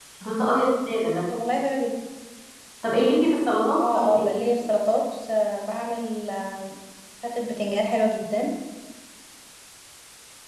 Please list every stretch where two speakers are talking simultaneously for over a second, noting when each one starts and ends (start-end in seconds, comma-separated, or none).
none